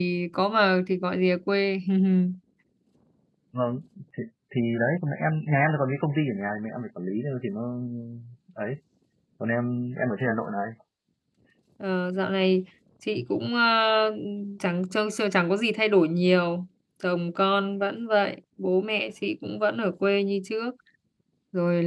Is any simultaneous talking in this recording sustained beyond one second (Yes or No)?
No